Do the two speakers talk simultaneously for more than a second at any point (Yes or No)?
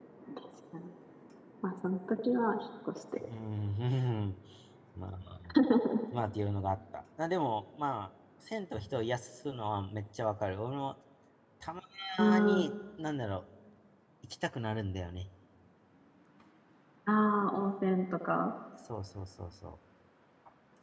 No